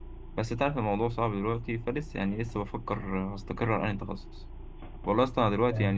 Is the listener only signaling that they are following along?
Yes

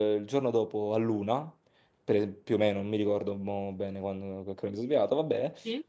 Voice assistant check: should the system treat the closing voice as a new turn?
No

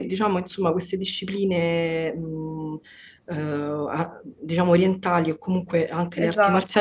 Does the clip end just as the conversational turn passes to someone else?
No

